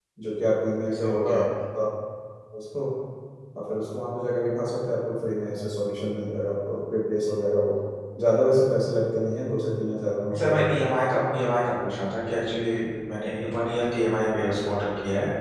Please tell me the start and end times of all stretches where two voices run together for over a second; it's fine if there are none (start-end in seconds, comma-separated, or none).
none